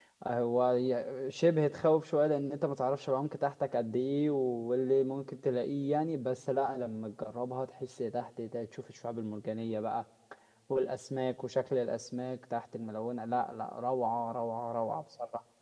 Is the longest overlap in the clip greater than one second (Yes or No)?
No